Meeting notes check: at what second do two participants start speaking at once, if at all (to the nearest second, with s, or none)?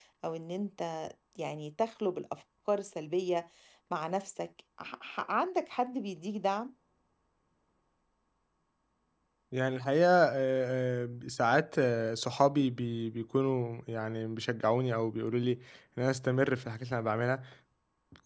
none